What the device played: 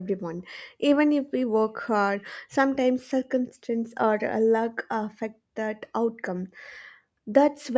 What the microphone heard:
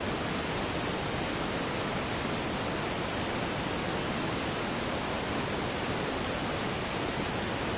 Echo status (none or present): none